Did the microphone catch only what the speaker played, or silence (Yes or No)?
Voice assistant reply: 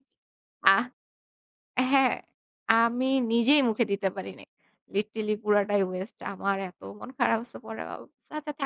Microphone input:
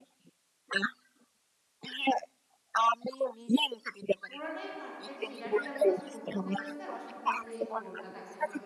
No